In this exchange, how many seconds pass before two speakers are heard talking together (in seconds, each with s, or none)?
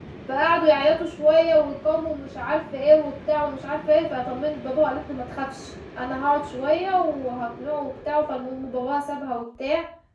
none